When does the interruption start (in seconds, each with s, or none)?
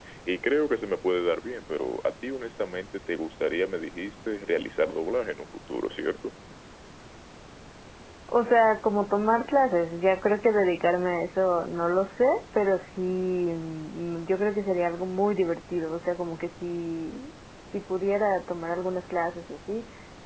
none